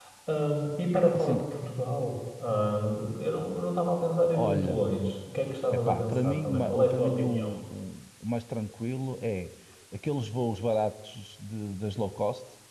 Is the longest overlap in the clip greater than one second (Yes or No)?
Yes